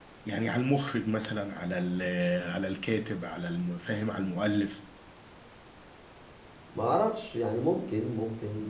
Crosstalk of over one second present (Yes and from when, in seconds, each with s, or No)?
No